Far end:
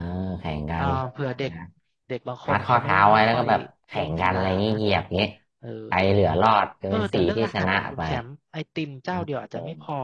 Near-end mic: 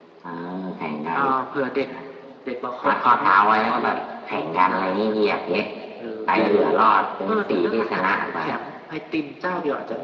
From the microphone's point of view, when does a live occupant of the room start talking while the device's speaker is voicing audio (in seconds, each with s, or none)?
6.3 s